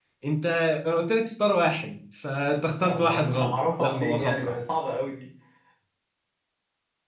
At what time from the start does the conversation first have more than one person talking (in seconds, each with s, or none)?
2.8 s